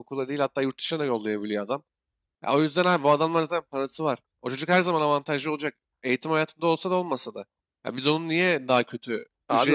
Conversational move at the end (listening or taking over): listening